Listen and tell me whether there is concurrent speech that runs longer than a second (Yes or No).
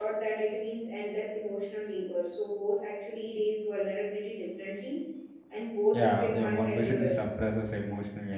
Yes